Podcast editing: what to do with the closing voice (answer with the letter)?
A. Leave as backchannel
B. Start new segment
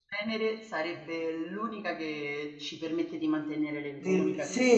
B